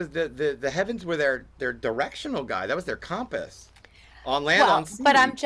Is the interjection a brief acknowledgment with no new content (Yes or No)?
No